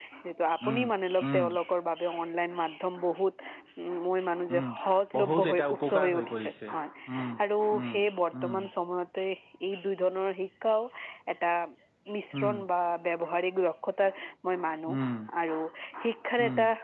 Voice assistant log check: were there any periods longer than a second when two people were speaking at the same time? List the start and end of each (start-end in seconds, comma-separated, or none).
5.2-6.5